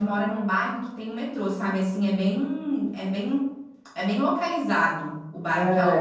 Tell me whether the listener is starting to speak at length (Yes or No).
Yes